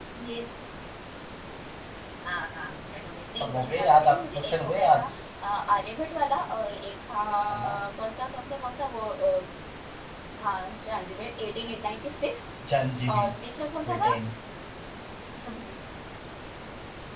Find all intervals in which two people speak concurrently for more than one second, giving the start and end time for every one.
3.4-5.0

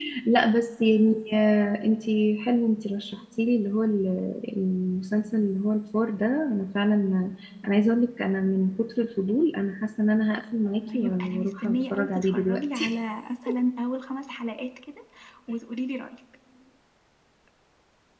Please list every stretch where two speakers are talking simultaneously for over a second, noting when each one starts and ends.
10.9-12.9

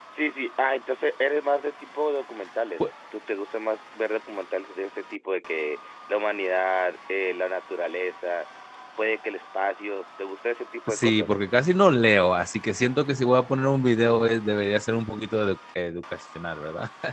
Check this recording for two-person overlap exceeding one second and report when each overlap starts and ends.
none

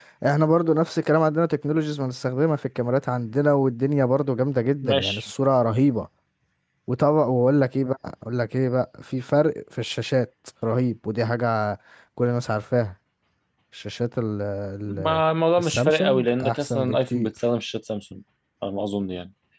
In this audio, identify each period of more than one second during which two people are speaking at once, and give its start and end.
15.6-17.3

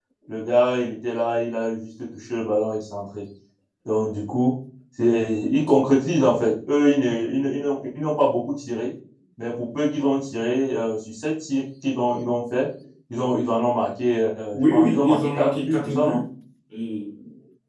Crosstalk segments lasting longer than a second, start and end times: 14.5-16.2

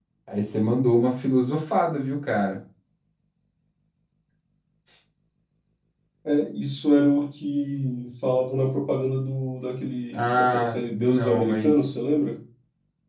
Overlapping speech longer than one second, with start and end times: 10.1-11.7

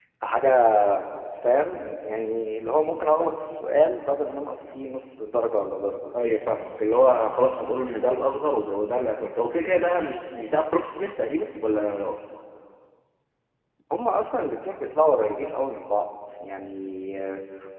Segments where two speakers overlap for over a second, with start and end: none

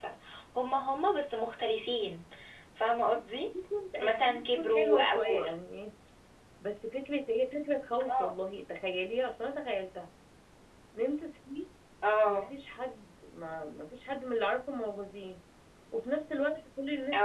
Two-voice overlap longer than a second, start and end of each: 4.1-5.4

